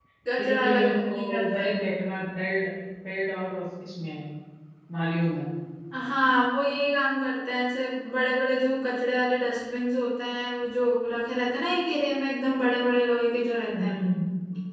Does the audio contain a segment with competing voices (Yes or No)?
Yes